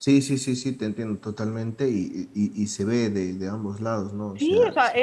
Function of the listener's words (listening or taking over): taking over